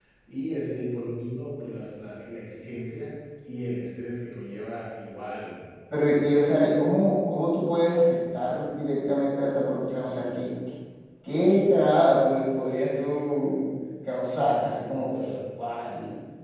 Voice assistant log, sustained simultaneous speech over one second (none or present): none